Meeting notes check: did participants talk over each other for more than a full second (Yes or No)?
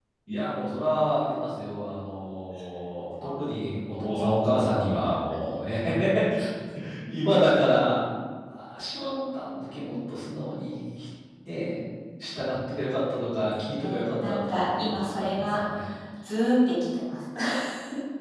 Yes